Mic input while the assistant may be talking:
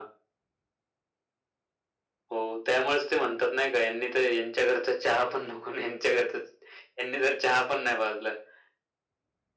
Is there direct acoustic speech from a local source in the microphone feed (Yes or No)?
No